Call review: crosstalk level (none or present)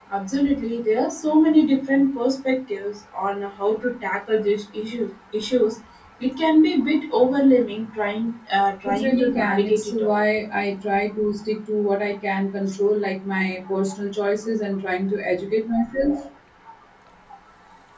present